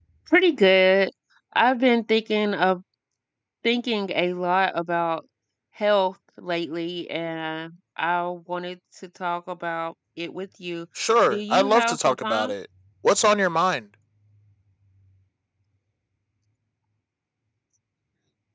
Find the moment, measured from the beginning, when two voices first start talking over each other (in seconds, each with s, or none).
11.3 s